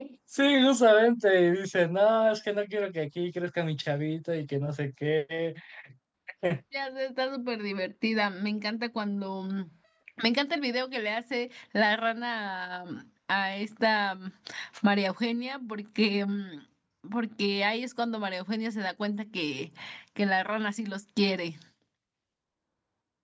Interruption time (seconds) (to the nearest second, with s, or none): none